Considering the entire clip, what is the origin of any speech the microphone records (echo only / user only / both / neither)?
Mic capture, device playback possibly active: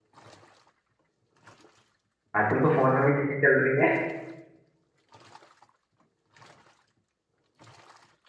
user only